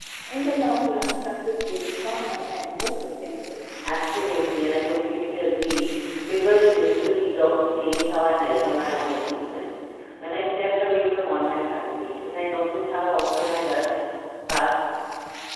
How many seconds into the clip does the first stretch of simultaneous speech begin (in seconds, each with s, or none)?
none